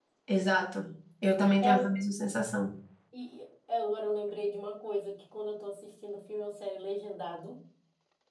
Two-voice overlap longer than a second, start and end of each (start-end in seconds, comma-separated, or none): none